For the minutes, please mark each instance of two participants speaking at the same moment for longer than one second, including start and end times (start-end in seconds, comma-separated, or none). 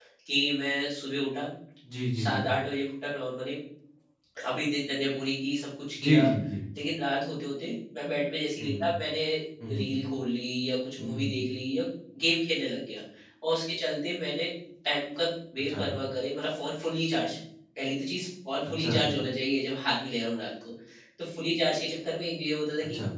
none